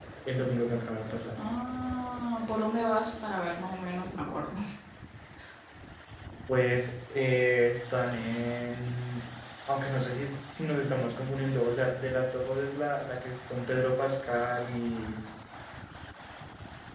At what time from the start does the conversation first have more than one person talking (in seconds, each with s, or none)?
none